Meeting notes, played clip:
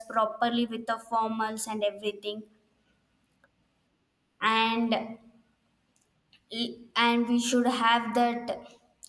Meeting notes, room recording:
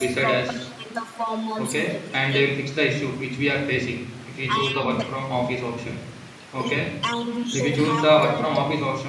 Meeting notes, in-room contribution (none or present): present